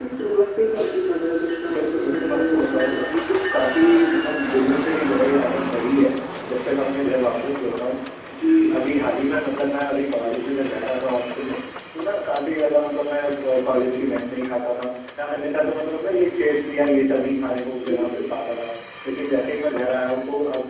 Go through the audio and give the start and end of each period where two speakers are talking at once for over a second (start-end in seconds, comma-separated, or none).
1.7-3.0